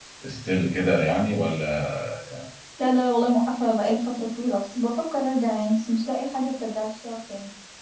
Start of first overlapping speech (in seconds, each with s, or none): none